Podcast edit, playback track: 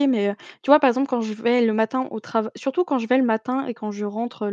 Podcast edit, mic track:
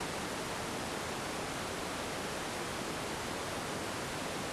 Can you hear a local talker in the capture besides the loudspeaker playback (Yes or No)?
No